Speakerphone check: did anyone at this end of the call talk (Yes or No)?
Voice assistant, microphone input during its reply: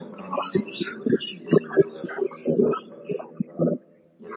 No